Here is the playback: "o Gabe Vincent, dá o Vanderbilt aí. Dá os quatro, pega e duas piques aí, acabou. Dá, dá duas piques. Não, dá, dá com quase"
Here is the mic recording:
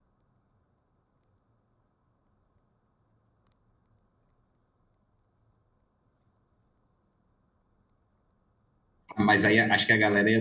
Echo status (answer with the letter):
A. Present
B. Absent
B